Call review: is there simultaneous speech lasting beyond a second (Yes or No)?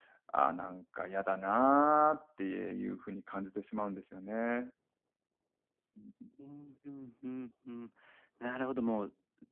No